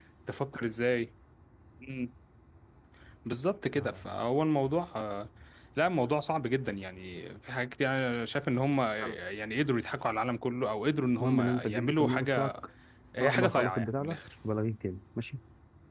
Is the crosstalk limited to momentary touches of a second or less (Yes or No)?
No